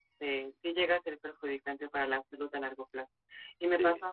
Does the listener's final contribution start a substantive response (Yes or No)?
No